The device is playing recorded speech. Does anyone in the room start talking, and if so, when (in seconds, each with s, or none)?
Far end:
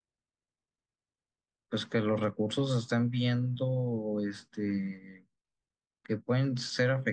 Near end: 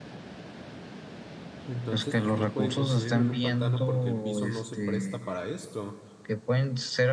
1.7 s